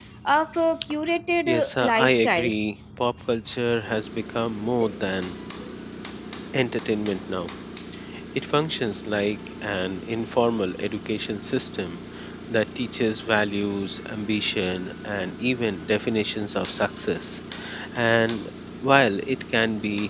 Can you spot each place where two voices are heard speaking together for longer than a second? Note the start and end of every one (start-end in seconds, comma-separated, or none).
1.5-2.7